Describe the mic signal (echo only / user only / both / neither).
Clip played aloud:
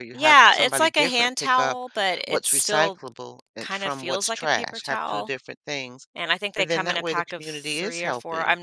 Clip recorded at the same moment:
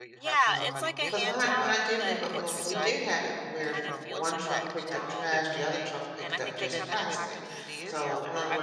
both